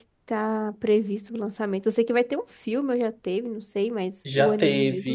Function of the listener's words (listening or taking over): taking over